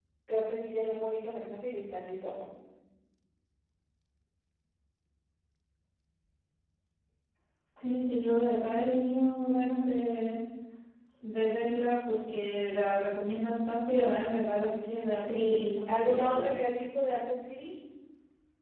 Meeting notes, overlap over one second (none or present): present